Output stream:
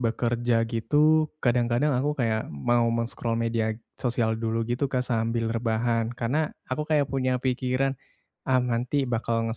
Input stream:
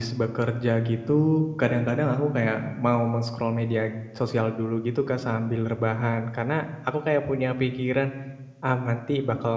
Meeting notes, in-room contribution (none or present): none